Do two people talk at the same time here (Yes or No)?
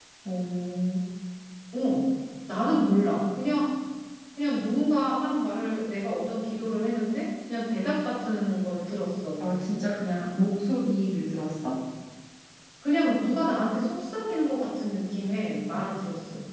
No